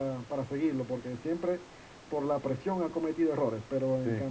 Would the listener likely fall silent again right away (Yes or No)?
Yes